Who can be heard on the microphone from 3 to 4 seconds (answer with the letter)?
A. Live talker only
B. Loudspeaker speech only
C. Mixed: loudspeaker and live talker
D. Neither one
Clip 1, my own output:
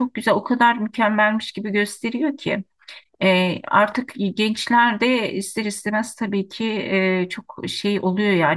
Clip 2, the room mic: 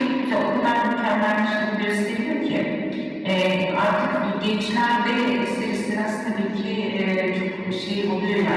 B